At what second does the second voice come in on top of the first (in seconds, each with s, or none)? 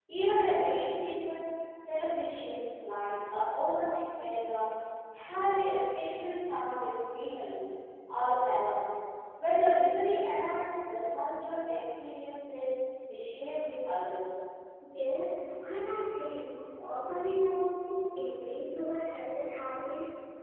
none